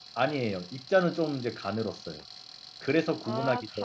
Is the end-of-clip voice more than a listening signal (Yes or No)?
Yes